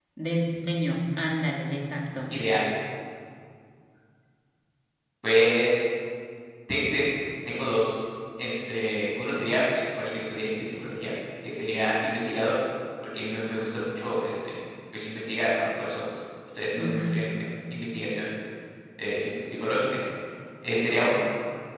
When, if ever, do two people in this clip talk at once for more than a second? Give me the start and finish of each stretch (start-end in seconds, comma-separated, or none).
none